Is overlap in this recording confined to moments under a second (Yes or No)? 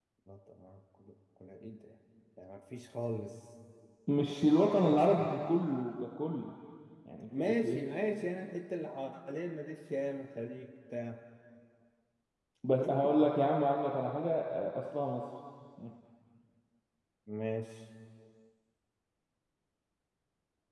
Yes